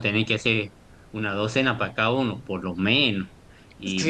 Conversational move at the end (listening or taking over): taking over